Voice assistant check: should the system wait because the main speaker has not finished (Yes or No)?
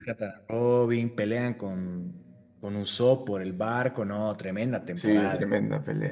No